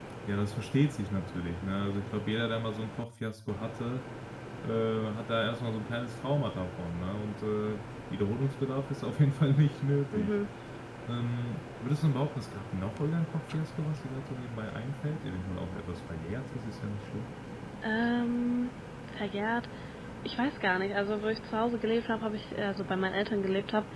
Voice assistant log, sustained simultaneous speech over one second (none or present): none